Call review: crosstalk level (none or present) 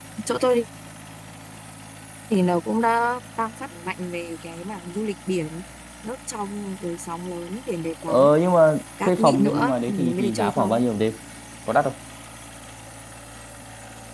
present